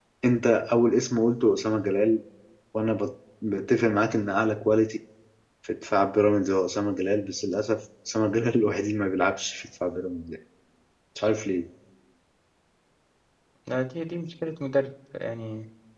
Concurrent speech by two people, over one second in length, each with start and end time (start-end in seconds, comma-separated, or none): none